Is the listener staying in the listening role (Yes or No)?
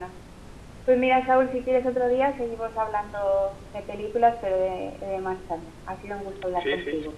No